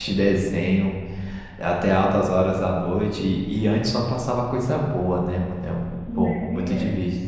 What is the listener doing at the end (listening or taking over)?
taking over